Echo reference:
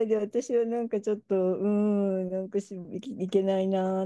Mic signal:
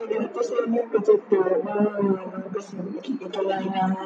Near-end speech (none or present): none